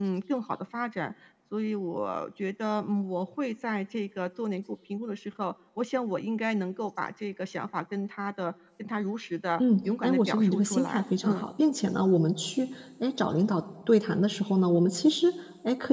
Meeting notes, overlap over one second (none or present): present